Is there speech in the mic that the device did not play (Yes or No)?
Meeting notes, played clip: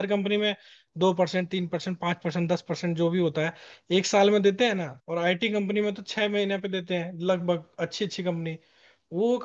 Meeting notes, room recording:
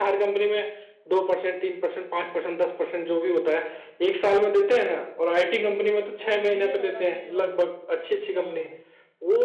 Yes